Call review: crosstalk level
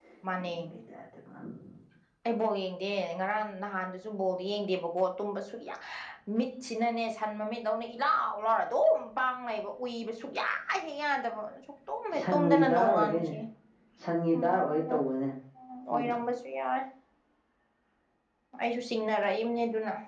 present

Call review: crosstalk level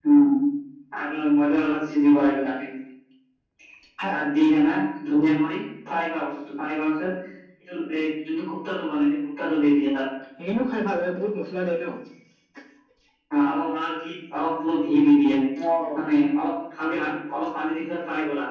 none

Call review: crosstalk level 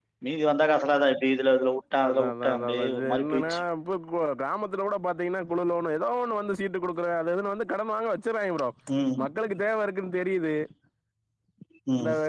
present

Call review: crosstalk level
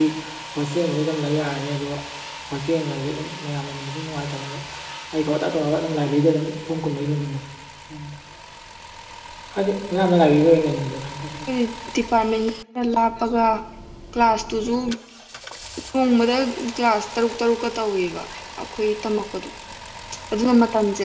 none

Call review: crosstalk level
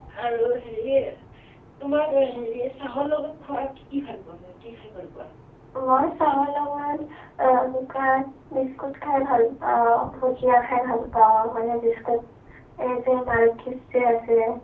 none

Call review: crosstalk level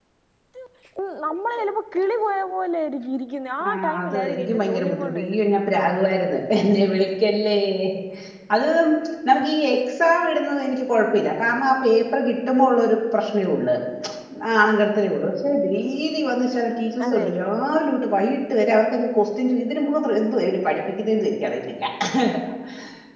present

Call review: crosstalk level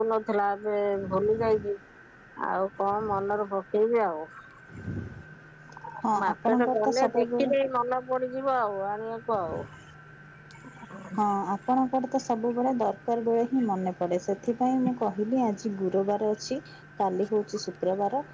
present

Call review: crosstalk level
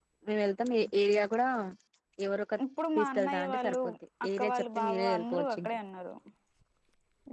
present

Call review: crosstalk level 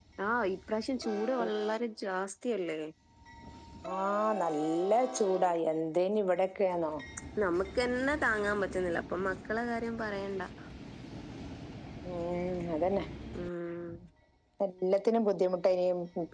none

